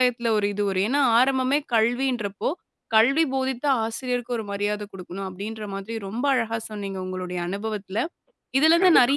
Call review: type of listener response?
listening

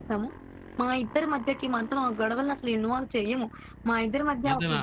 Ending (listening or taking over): listening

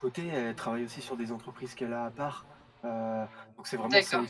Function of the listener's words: taking over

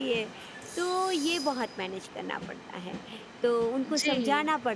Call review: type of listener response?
listening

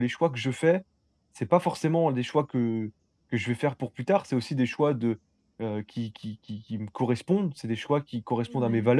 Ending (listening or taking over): listening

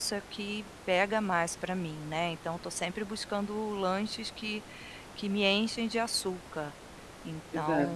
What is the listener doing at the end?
listening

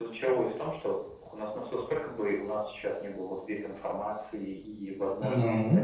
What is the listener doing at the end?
listening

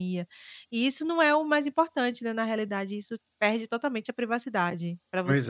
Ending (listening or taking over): taking over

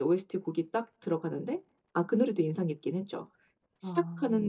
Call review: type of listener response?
listening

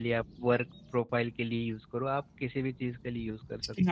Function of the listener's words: taking over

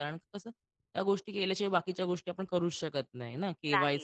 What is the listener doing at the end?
listening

